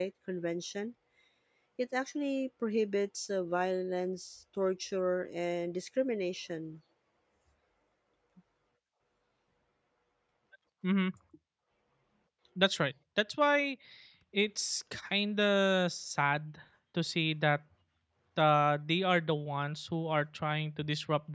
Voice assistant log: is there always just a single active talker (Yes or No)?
Yes